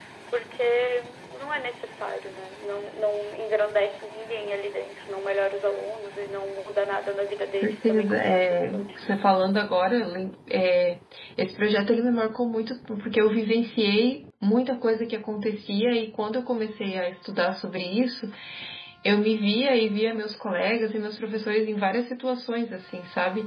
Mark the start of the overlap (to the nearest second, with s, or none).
8 s